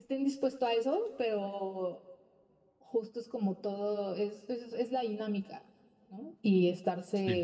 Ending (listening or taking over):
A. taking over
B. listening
B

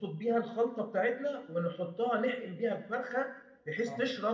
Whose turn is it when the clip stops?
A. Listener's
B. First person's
B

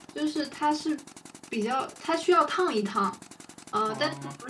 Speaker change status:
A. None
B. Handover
A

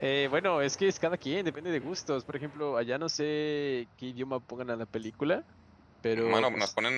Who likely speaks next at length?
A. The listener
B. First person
A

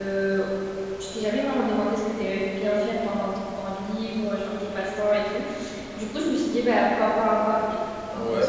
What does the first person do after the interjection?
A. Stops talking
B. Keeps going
A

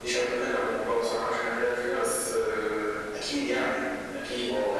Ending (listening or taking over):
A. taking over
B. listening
A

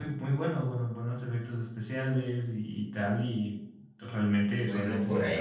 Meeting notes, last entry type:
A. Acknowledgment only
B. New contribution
B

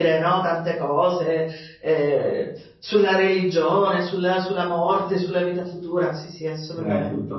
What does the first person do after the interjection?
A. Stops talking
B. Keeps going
A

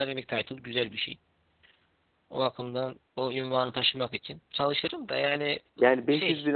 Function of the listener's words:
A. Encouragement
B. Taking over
B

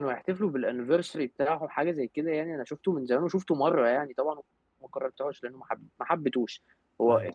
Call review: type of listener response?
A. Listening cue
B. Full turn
A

